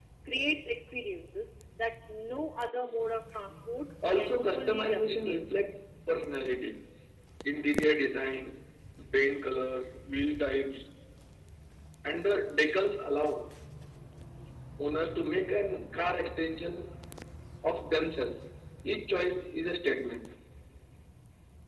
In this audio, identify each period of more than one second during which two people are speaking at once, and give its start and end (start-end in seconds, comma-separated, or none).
4.2-5.4